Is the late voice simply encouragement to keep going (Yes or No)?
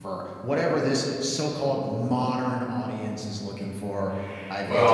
No